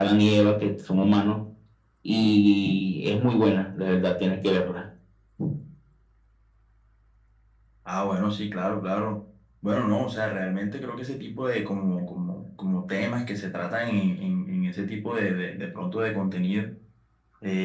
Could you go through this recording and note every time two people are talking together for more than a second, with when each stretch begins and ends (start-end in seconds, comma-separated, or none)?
none